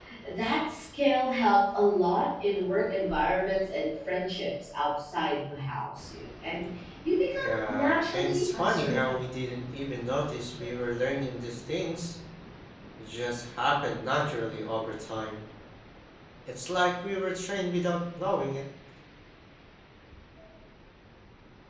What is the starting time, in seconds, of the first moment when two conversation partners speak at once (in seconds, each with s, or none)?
7.4 s